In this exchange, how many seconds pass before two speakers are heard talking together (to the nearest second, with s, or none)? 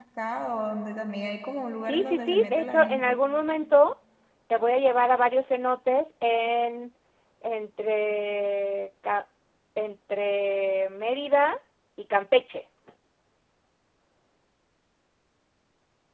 2 s